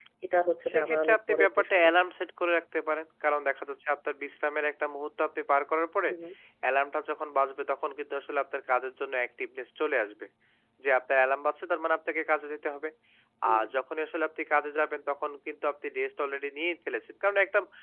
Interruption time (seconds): 0.7 s

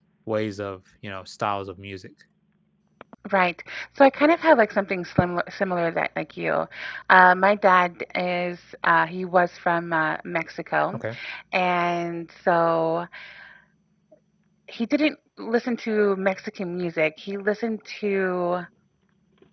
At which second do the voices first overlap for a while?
none

